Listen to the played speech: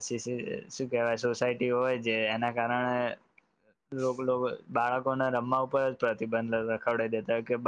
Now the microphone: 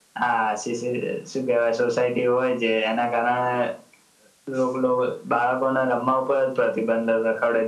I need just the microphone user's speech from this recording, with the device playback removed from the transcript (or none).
none